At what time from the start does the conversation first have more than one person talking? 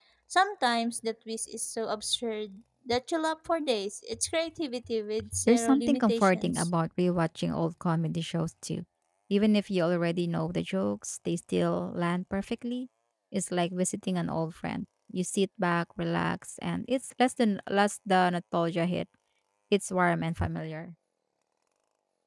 5 s

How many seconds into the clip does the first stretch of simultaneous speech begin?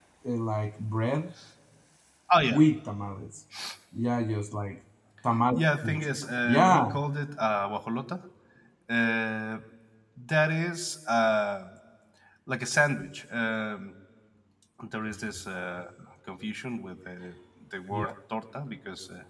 6 s

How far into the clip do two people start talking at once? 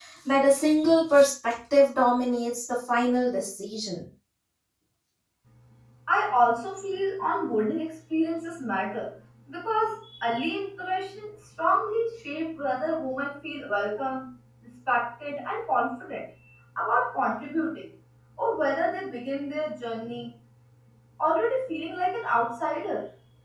none

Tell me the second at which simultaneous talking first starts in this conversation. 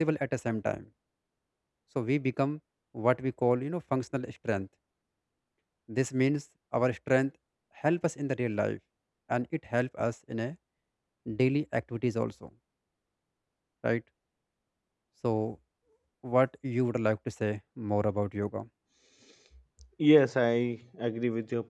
none

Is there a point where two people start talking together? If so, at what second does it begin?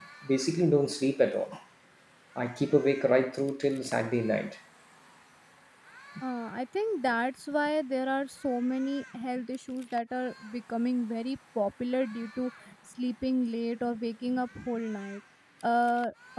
none

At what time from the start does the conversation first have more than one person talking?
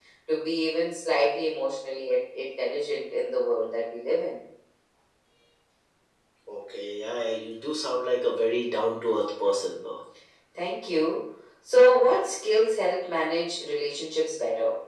none

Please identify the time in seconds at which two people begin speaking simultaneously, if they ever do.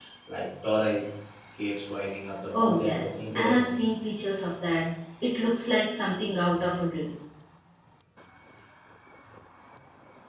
3 s

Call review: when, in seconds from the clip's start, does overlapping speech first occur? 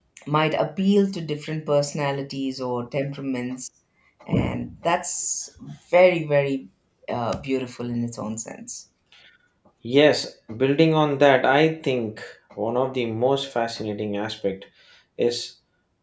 none

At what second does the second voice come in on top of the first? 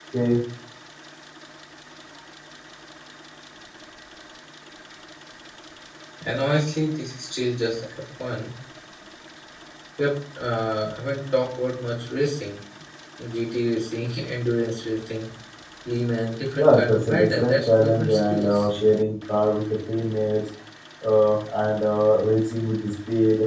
17 s

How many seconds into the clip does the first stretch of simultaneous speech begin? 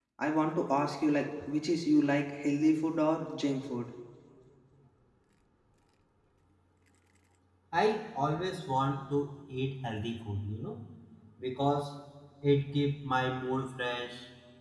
none

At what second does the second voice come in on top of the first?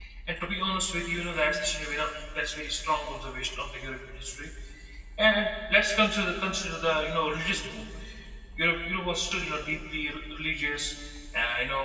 none

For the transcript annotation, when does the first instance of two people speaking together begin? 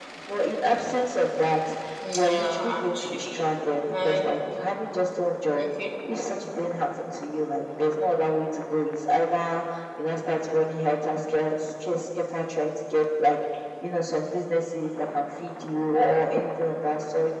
2 s

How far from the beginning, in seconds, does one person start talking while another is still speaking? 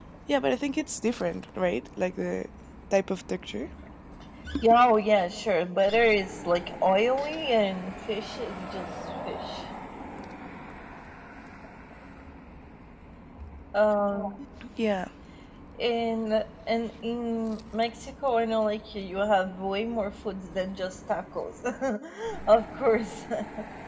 none

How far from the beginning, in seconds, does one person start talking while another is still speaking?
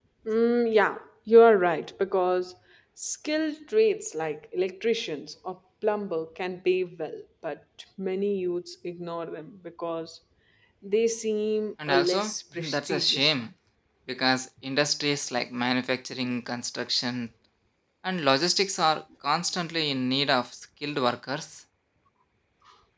12 s

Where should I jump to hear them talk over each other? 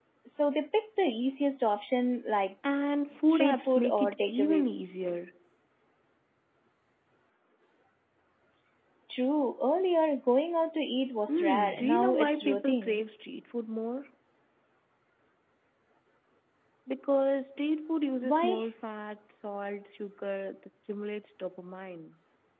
3 s

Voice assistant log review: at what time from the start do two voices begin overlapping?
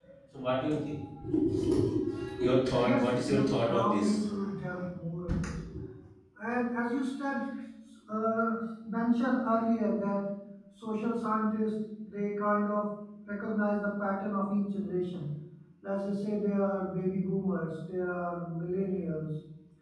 3 s

